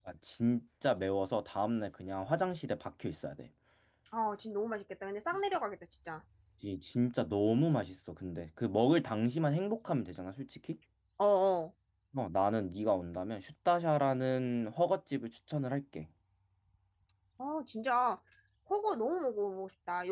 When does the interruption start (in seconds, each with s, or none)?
none